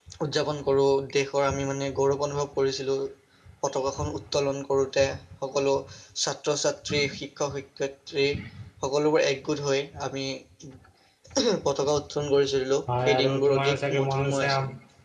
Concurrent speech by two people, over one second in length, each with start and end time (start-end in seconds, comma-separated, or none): 13.1-14.5